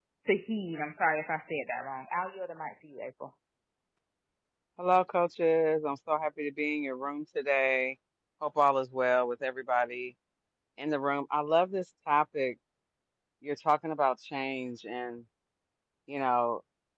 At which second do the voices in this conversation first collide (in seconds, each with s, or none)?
none